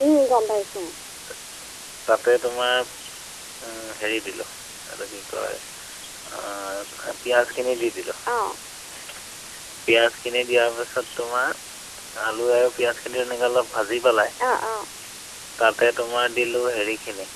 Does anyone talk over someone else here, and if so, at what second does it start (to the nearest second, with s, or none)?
none